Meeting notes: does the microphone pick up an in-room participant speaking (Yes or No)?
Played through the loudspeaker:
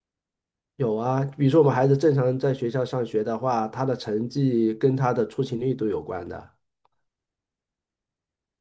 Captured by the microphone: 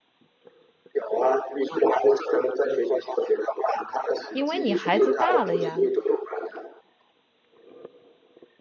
Yes